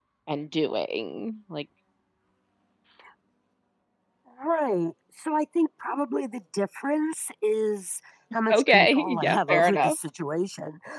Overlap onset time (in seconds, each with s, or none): 8.5 s